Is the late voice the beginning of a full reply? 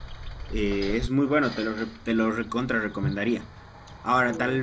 No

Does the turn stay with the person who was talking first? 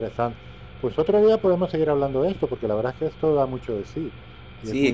No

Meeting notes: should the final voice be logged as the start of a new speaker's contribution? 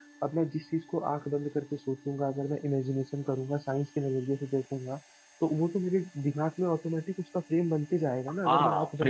Yes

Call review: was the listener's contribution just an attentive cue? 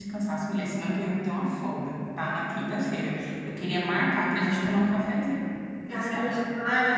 No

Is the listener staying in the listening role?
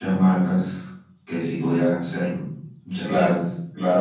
No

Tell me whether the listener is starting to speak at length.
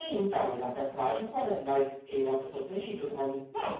Yes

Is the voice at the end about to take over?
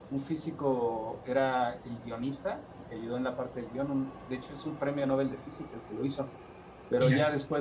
No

